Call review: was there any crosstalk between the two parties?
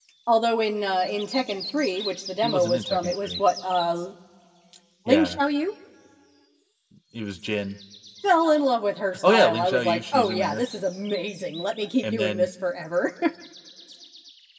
Yes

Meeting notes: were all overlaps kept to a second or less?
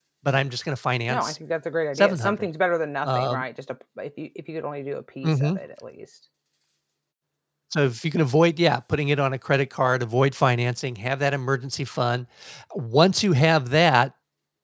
Yes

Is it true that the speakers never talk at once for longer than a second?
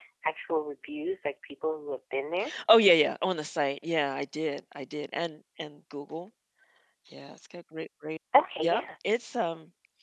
Yes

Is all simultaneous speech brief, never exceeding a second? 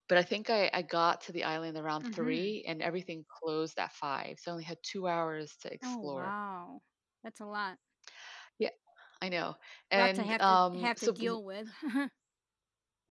No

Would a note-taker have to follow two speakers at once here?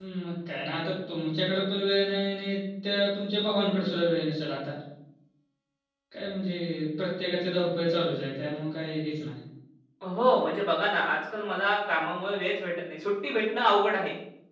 No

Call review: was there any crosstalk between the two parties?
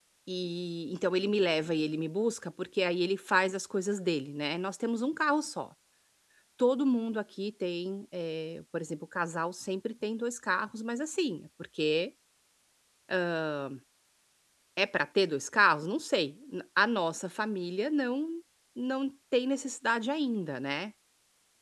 No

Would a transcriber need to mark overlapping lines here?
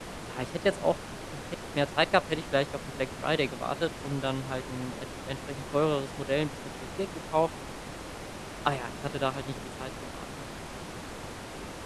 No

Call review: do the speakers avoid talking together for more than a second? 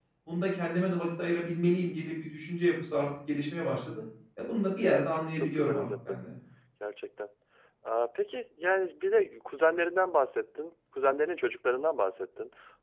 No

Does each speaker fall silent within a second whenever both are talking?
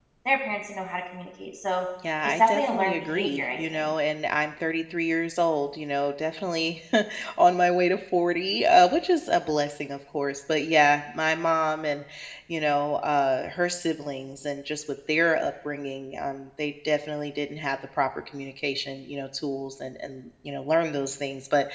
No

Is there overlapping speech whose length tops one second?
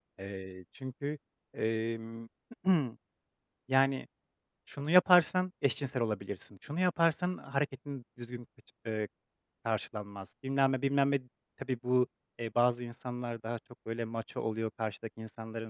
No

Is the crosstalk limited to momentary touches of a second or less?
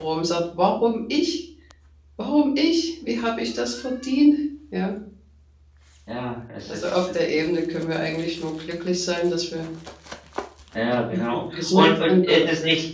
No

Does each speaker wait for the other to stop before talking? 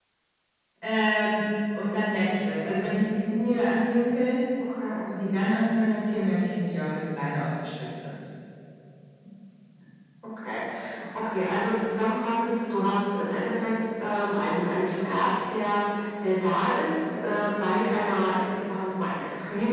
Yes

